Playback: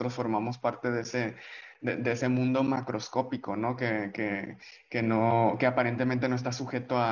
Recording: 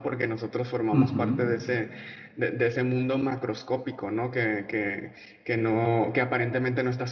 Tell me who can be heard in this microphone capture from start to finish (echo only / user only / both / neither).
both